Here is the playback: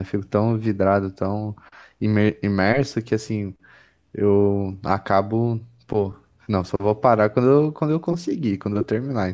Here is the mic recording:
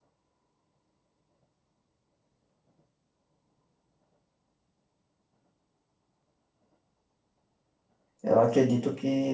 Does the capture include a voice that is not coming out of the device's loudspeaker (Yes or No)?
Yes